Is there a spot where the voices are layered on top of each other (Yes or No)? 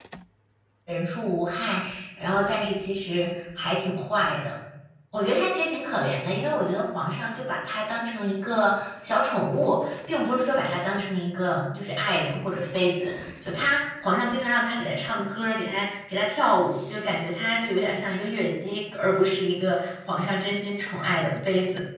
No